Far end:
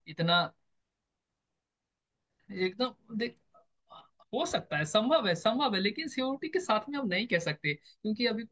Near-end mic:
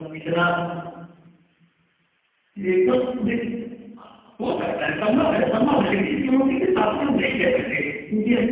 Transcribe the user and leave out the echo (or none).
none